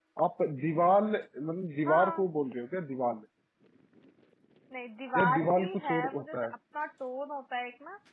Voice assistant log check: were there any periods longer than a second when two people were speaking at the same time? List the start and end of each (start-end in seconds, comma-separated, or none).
5.2-6.5